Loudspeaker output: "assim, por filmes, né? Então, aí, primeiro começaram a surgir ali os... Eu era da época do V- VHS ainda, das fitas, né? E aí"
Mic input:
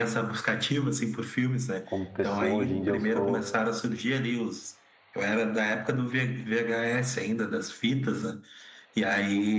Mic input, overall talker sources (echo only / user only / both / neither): both